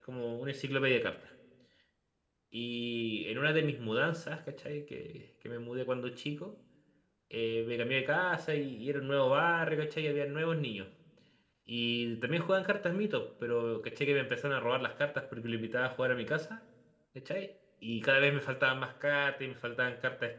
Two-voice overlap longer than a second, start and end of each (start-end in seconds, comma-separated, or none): none